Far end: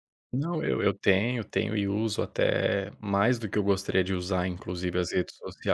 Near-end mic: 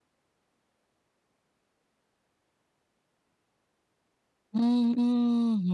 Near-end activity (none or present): present